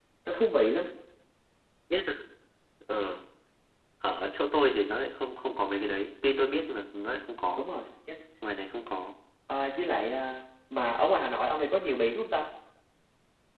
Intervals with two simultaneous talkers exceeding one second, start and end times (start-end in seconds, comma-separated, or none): none